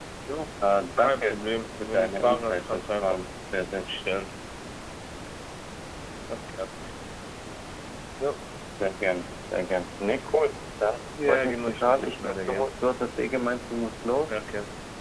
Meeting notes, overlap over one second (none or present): present